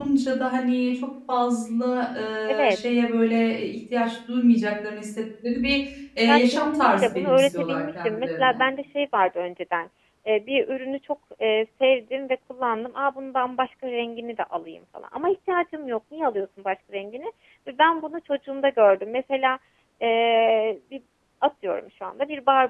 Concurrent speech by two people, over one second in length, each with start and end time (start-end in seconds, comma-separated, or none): 6.3-8.6